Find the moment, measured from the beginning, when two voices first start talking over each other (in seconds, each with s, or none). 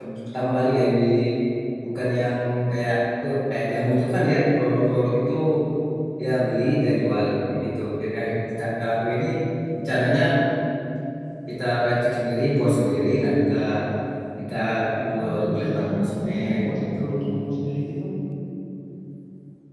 15.1 s